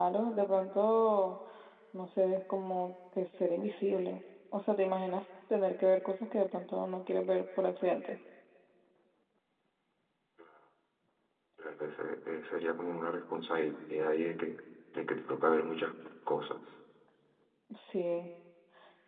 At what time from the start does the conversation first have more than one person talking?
none

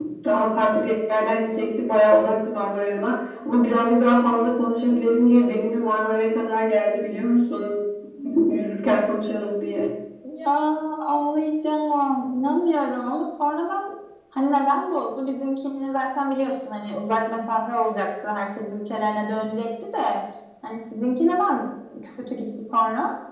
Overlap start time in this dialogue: none

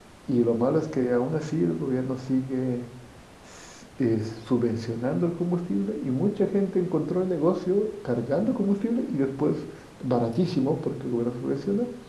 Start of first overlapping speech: none

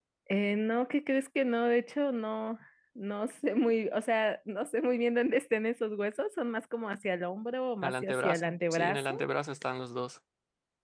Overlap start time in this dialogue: 8 s

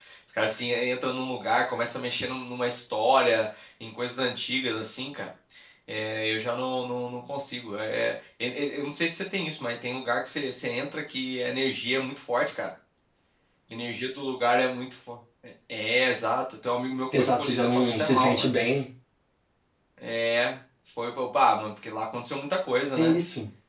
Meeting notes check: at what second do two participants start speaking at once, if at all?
17 s

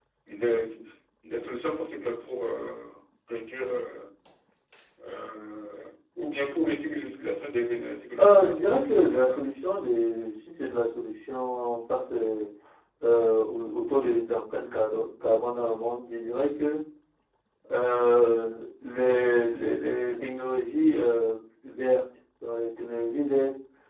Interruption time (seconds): 8 s

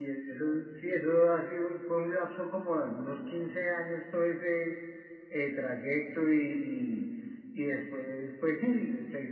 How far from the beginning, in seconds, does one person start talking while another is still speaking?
none

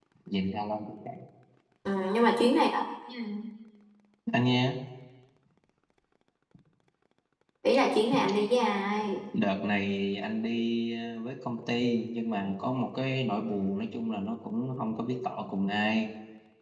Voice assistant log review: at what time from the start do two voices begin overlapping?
none

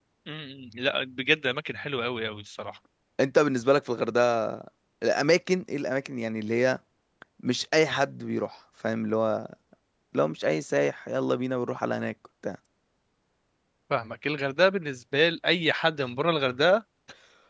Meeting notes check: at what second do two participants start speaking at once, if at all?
none

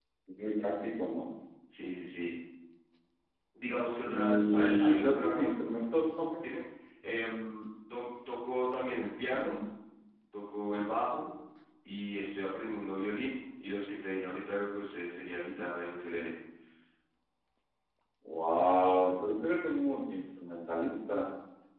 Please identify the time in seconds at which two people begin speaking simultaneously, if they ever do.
4 s

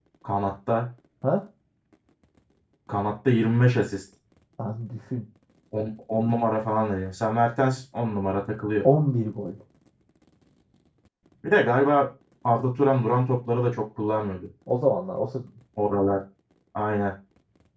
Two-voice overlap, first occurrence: none

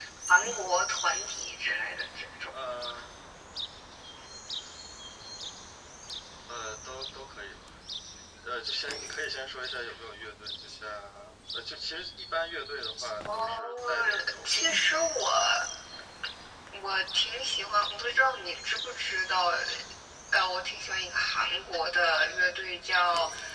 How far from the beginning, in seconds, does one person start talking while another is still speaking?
13 s

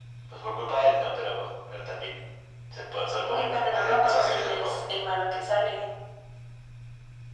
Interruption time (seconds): 3 s

